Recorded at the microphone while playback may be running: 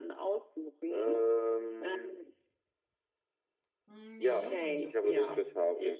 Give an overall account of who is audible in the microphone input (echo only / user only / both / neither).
both